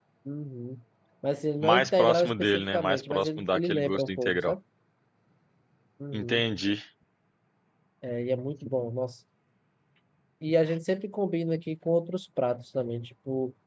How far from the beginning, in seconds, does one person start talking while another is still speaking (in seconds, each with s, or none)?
1.6 s